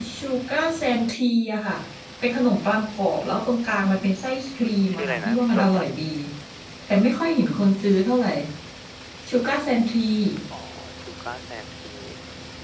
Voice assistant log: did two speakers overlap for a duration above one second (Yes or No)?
Yes